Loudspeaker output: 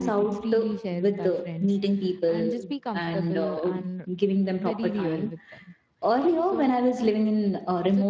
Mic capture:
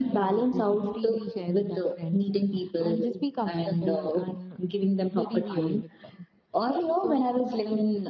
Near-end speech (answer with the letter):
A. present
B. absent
B